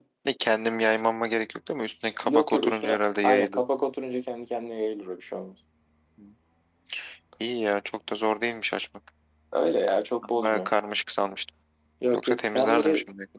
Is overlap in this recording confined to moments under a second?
No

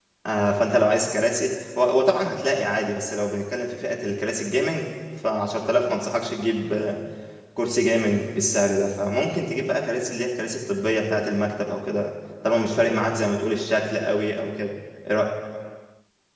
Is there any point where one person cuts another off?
No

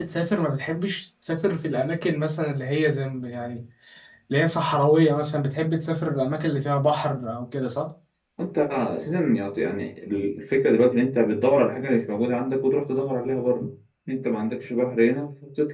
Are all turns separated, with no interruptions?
Yes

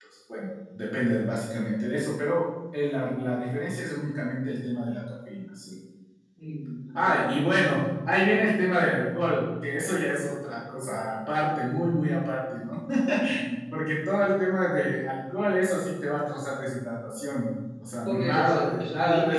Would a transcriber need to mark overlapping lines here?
Yes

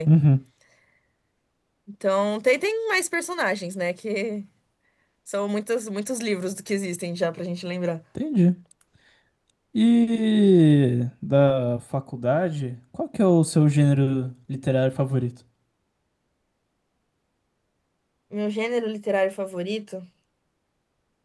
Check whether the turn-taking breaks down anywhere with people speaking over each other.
No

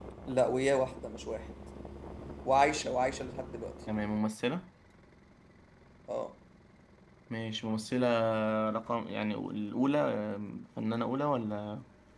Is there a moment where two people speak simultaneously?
No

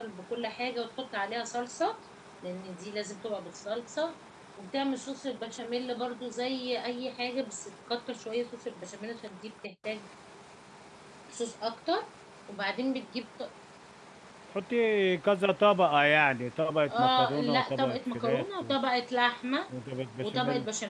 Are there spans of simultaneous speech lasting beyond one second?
Yes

